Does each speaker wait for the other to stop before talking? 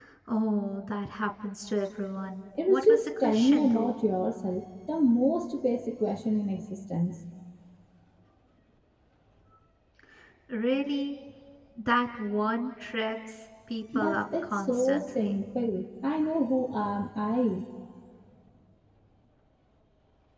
No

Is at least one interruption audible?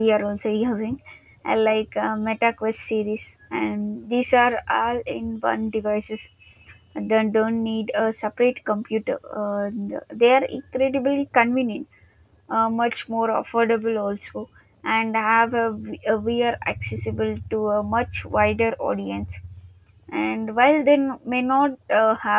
No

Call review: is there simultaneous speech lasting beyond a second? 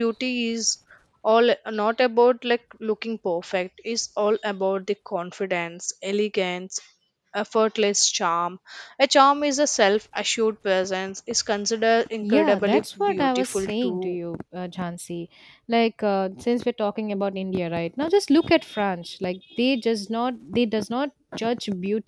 Yes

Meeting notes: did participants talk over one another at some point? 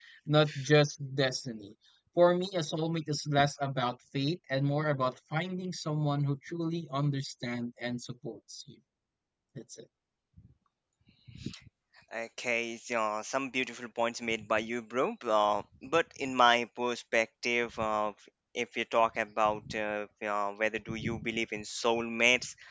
No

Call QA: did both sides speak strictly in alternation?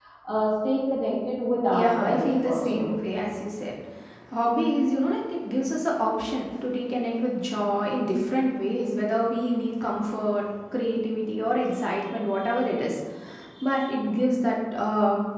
No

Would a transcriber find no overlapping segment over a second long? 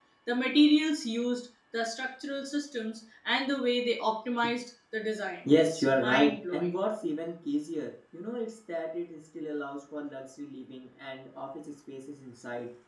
No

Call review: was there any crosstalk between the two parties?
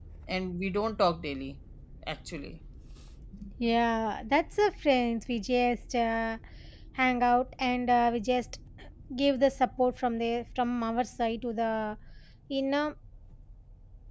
No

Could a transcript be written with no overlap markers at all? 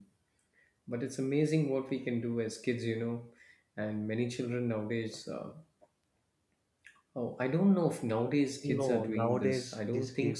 No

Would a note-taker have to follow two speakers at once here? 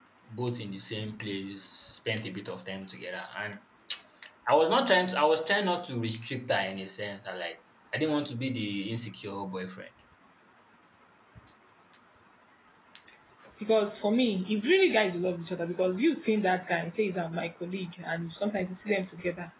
No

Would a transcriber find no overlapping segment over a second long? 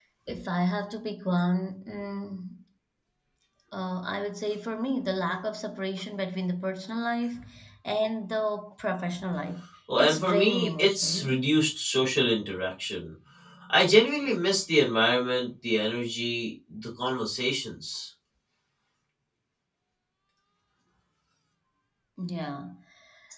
No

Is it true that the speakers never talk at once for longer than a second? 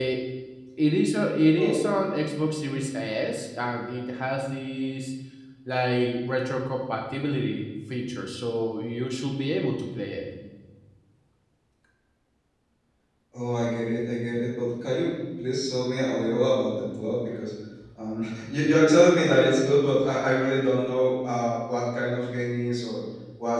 Yes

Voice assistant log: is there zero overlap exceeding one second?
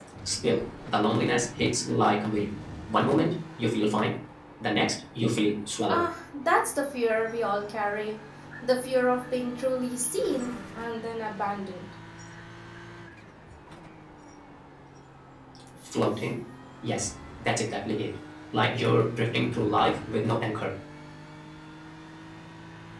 Yes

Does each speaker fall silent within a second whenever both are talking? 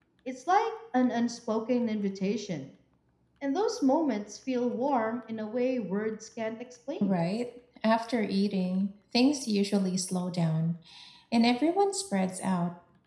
Yes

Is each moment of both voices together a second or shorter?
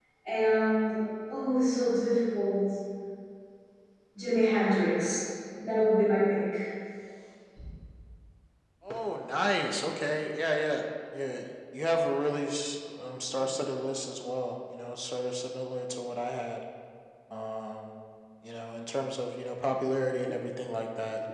Yes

